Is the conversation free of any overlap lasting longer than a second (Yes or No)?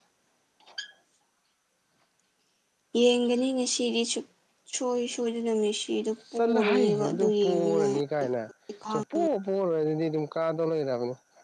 No